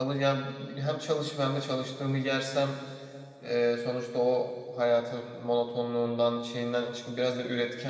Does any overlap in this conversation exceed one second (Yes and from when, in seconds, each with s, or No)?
No